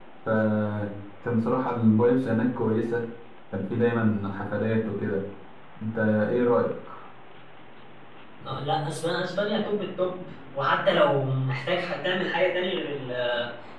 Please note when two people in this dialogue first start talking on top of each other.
none

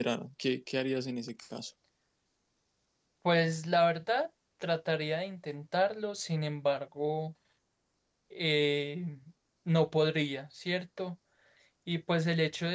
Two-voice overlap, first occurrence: none

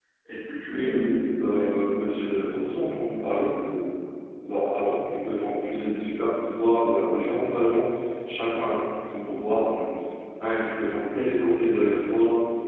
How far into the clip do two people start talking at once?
0.7 s

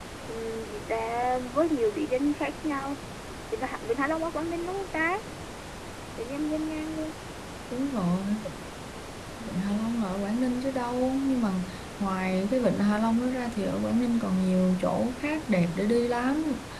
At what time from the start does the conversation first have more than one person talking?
none

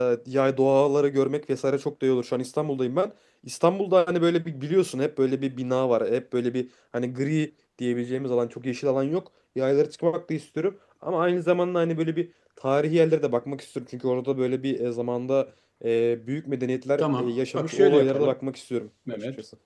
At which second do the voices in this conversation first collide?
17.0 s

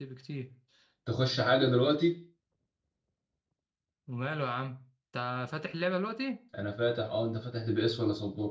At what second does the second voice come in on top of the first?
none

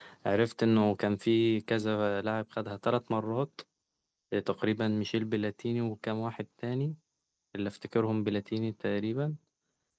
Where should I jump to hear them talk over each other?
none

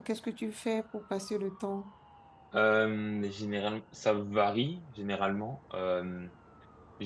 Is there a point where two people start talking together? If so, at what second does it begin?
none

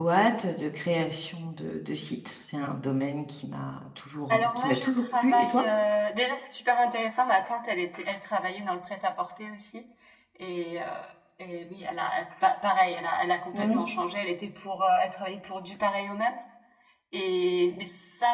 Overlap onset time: 4.3 s

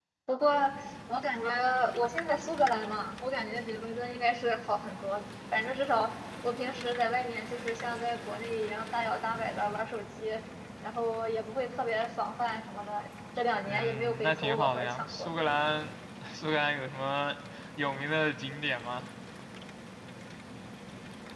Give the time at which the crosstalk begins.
13.7 s

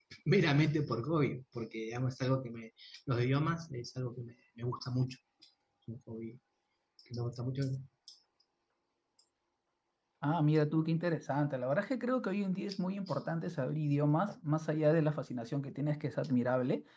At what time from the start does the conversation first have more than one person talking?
none

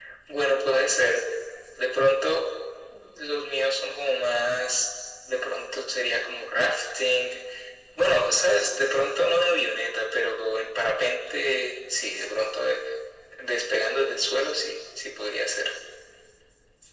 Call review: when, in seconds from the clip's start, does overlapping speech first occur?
none

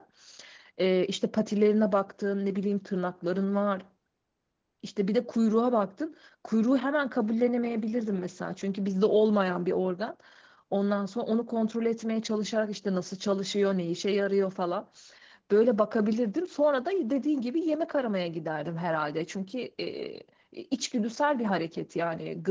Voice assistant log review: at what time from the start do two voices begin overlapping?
none

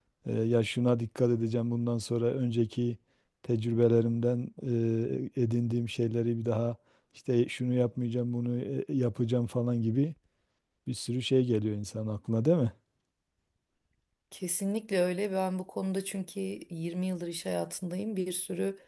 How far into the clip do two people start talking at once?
none

